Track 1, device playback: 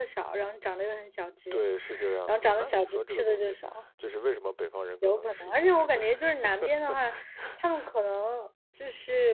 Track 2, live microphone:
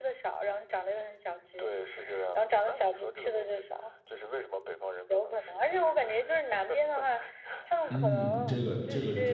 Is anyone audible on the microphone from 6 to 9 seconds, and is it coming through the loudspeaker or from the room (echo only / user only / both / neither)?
both